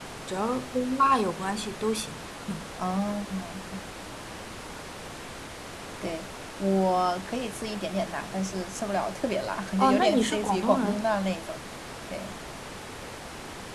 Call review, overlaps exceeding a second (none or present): present